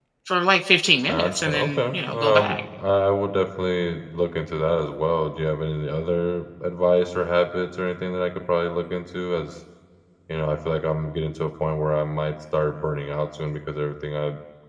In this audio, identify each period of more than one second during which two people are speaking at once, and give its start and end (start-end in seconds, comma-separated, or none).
1.1-2.6